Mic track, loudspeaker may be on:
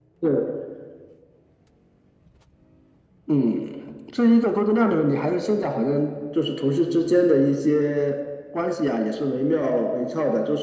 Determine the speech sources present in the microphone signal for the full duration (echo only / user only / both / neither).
echo only